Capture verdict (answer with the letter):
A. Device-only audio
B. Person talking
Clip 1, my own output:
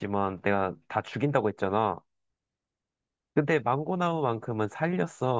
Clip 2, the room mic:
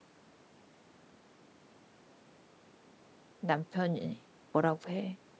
B